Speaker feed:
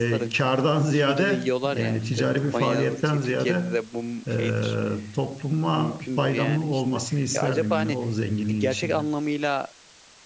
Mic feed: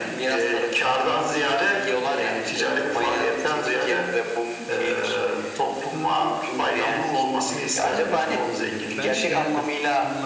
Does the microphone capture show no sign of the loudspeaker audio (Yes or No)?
No